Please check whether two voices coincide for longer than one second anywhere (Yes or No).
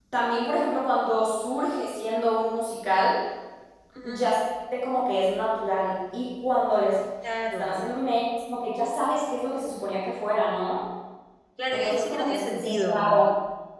Yes